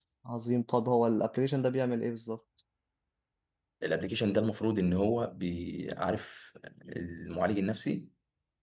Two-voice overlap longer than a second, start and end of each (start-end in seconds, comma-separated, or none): none